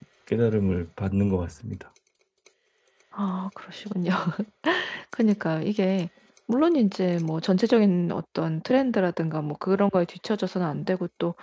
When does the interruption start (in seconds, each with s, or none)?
none